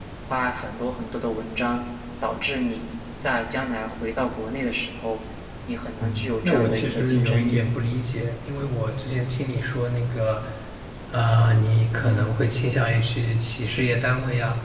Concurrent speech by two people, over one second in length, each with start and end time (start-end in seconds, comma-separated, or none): 6.0-7.6